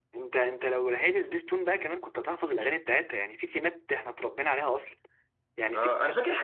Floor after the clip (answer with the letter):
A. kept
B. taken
B